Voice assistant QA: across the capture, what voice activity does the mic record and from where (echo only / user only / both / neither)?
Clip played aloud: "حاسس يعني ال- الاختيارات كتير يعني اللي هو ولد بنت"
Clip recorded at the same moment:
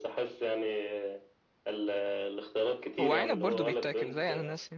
both